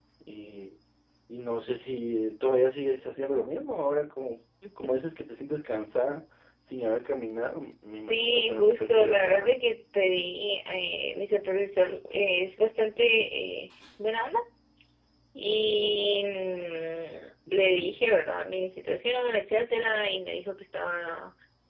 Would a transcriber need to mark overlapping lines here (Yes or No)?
Yes